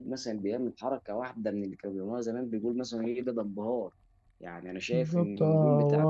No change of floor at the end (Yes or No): No